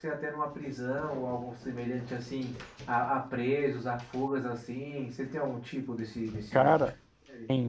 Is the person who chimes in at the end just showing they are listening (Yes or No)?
No